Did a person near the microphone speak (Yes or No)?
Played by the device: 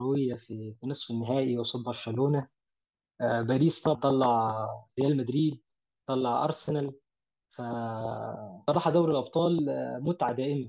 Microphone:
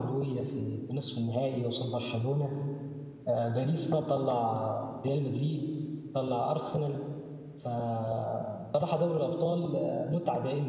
No